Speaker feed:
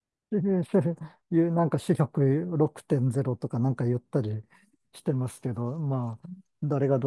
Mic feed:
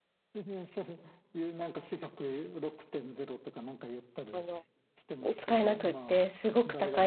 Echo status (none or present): present